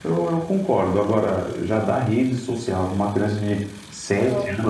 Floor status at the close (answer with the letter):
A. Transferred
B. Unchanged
B